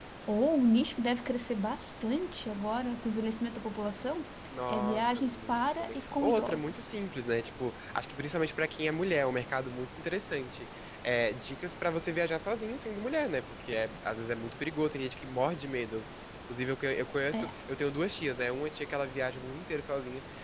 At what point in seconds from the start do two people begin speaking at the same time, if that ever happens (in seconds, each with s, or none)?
4.7 s